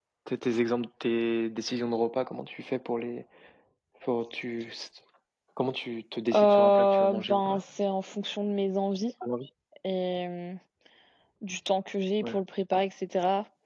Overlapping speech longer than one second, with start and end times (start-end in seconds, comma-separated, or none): 6.3-7.6